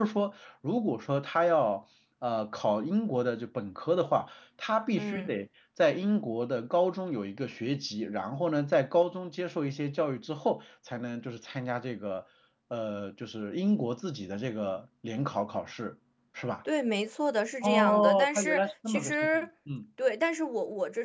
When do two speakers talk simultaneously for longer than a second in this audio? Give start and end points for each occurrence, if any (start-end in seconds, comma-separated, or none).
17.6-19.5